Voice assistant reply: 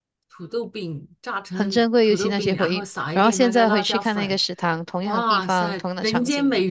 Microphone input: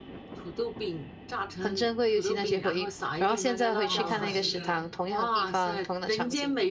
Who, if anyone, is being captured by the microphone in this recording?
both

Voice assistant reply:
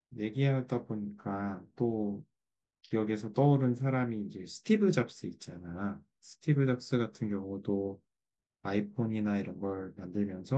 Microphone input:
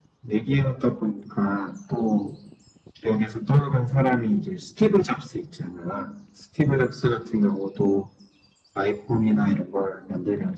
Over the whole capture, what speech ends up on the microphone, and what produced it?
echo only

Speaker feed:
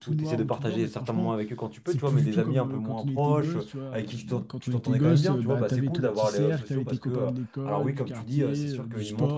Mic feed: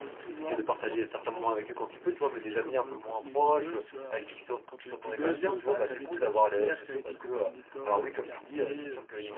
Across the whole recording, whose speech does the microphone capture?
echo only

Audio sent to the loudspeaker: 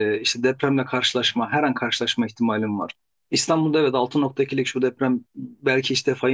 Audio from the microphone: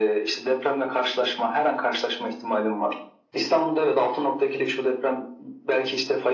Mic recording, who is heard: echo only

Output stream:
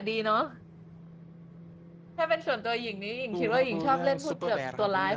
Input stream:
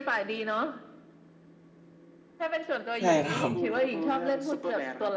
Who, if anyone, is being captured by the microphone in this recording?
both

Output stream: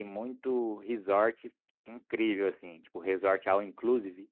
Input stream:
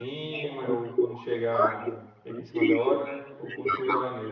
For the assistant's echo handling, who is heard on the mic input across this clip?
both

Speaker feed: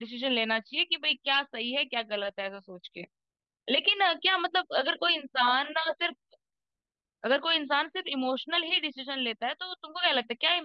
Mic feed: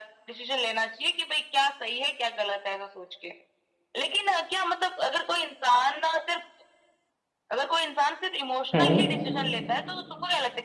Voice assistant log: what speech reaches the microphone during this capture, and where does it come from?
both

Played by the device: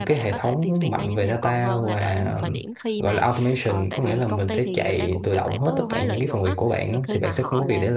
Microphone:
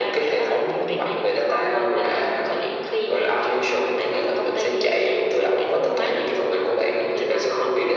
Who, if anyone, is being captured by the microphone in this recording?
echo only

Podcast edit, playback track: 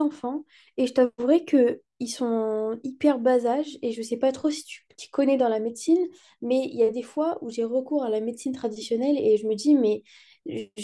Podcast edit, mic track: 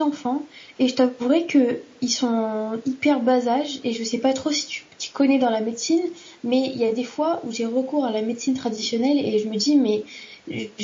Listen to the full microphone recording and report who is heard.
echo only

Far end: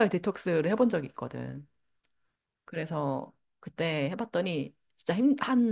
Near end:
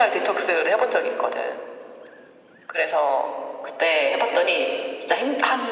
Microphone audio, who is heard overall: echo only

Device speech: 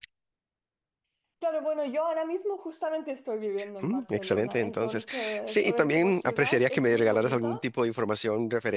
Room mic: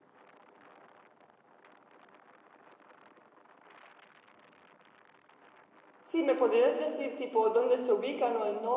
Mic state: user only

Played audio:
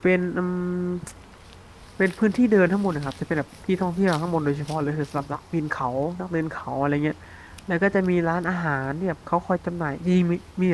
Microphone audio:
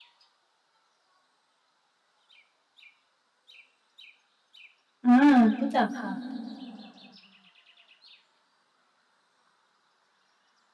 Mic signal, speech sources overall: user only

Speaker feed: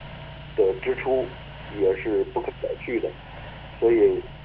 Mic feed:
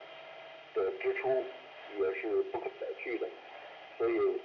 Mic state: echo only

